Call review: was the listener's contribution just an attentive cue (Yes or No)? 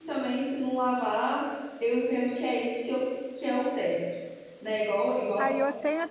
No